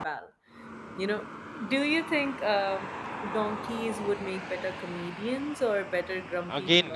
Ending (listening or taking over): taking over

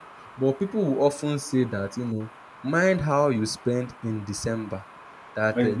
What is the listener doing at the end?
taking over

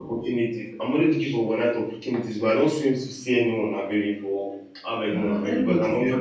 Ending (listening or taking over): taking over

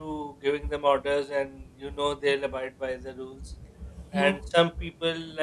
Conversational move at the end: listening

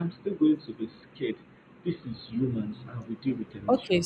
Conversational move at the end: taking over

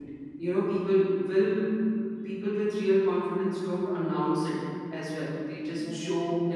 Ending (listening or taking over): listening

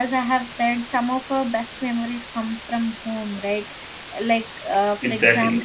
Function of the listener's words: listening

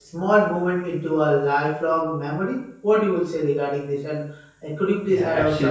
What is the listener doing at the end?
taking over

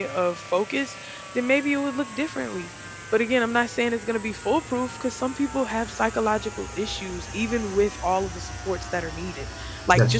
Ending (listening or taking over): listening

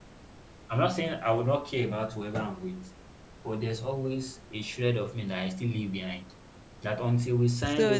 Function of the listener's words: taking over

